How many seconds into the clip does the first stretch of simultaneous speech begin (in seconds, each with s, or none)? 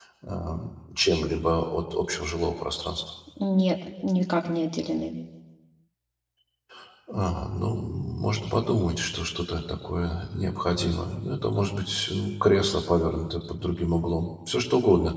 none